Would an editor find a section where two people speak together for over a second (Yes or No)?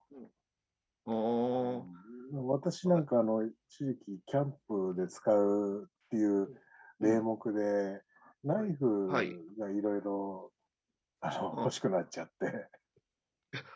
No